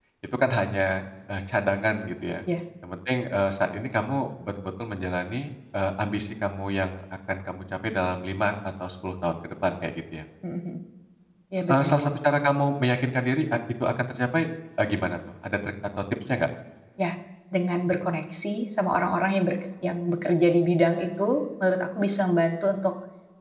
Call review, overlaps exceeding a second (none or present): none